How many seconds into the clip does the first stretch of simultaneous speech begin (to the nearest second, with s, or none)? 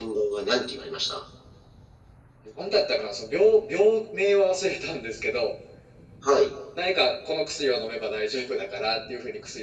none